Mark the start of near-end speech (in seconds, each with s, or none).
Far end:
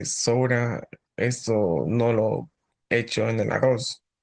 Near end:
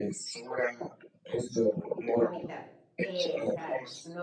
2.1 s